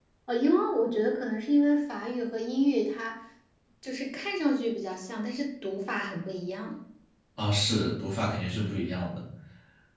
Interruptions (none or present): none